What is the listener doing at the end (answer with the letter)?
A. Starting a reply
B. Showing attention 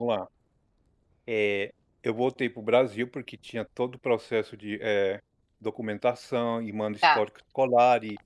B